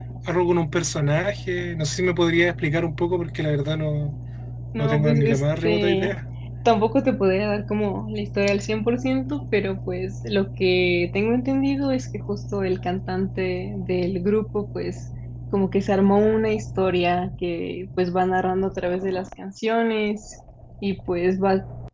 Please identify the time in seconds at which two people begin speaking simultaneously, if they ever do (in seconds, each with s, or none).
4.8 s